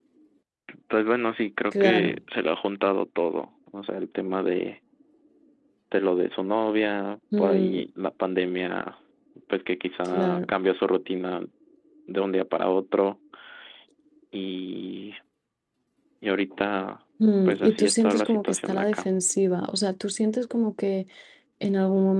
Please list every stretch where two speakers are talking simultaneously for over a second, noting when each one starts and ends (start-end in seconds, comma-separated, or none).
17.5-19.1